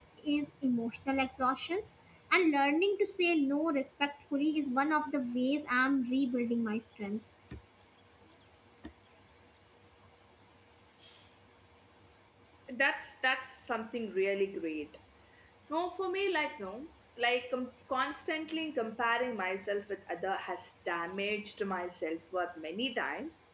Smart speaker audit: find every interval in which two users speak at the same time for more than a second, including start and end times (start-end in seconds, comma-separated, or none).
none